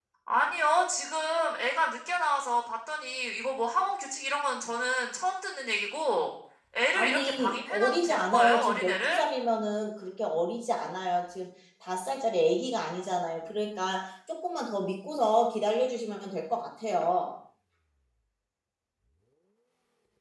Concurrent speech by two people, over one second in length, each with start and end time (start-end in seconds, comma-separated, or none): 6.9-9.2